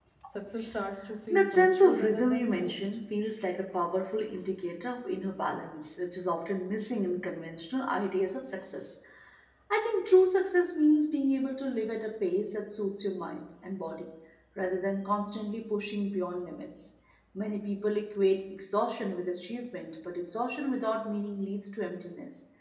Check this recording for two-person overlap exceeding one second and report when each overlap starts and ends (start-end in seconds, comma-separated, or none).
1.3-2.7